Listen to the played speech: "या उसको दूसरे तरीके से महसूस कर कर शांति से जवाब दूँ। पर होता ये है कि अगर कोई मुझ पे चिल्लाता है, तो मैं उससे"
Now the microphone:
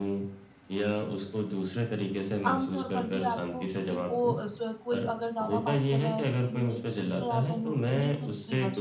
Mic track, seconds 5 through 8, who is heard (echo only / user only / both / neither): both